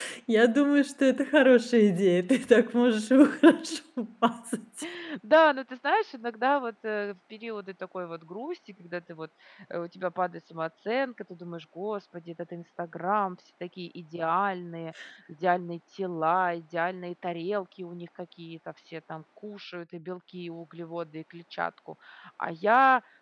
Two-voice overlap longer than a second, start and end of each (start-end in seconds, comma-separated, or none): none